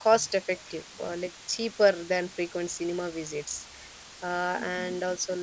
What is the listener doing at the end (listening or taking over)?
listening